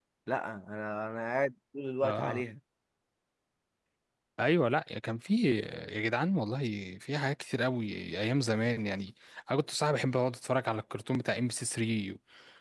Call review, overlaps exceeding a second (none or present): none